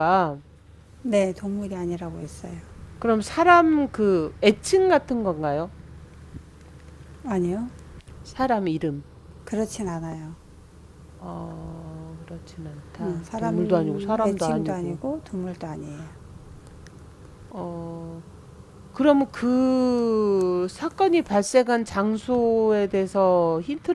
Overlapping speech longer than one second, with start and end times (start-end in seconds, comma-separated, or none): 13.0-15.0